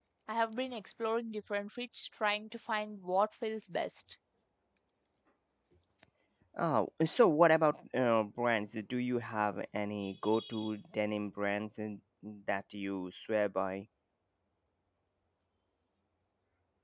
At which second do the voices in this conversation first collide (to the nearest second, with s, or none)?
none